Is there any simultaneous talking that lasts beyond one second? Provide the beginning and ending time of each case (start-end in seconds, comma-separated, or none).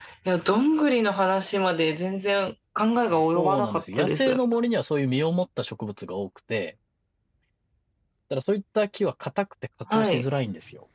3.1-4.4